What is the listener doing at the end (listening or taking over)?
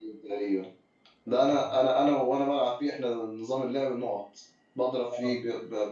listening